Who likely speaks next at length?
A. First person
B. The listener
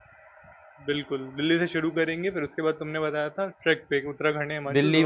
B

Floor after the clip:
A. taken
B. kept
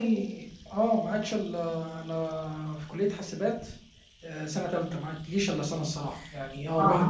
B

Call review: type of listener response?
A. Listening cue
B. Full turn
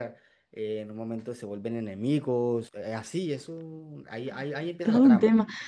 B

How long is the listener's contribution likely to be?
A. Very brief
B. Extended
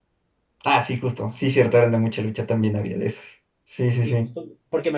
B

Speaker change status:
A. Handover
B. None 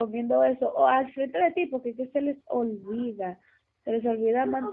A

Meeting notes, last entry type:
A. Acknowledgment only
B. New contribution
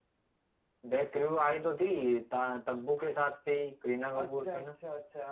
B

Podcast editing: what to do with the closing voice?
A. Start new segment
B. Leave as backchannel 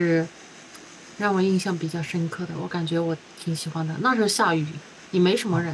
A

